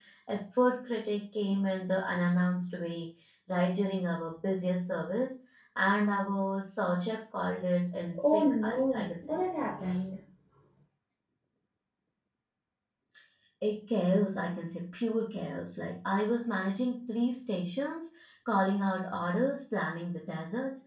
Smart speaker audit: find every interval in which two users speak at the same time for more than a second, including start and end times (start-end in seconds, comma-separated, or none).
8.2-9.4